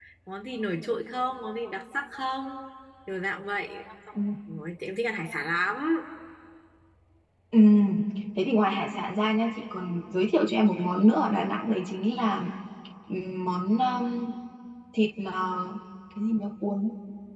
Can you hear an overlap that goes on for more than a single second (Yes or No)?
No